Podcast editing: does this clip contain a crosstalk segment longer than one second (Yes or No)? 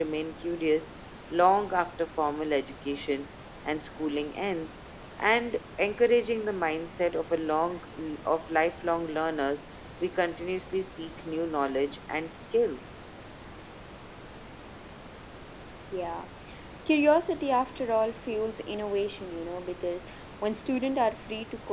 No